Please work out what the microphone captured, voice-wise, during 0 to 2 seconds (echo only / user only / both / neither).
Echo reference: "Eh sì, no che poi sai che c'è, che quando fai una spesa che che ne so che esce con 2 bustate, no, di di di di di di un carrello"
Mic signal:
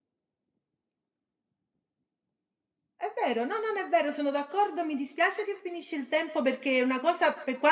neither